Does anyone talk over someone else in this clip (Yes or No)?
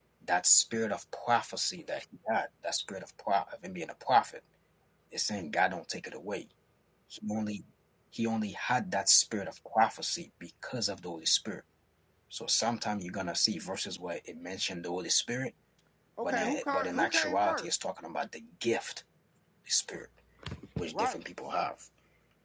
Yes